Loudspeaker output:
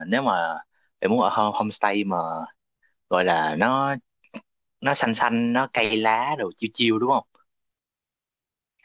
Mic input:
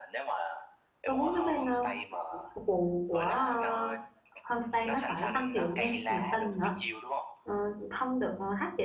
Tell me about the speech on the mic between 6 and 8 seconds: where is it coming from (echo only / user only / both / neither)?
both